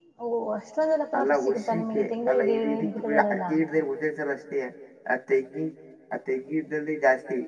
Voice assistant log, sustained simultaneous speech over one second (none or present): present